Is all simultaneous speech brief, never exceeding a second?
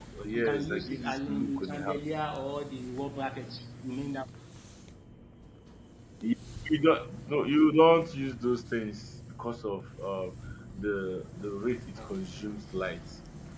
No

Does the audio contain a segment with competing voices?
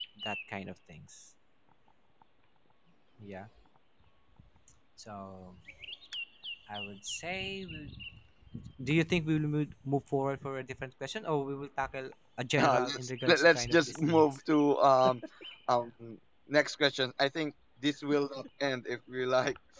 Yes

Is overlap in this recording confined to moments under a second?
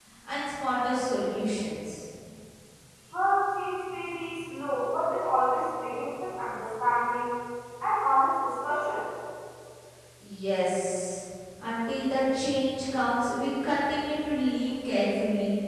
Yes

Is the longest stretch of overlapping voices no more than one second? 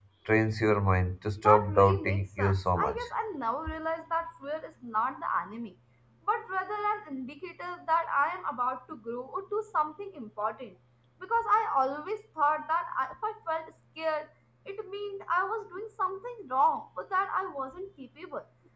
No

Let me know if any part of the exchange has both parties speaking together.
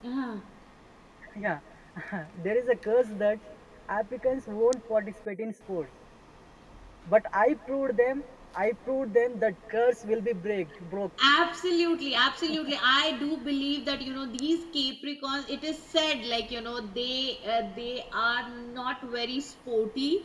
No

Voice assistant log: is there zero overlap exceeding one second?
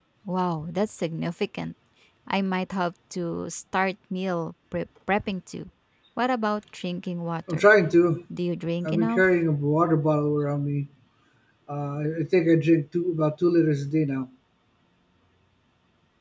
Yes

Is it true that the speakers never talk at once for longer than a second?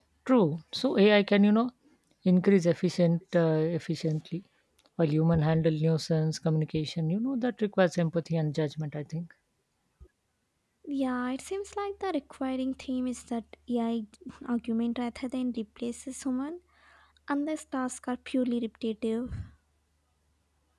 Yes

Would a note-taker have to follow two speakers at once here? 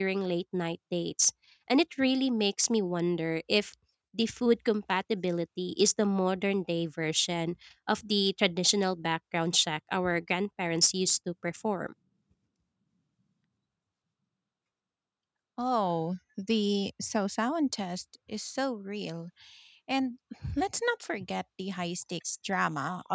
No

